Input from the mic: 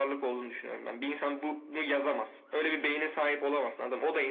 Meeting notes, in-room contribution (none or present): none